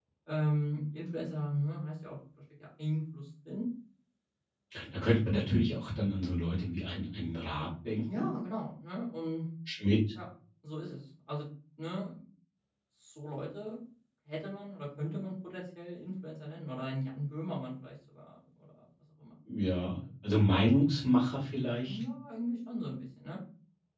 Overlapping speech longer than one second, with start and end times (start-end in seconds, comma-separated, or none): none